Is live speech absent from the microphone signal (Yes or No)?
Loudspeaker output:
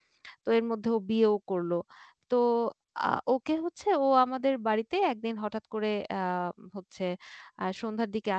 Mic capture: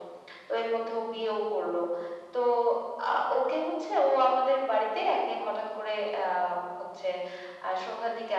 Yes